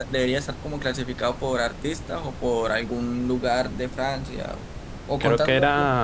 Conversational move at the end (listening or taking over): taking over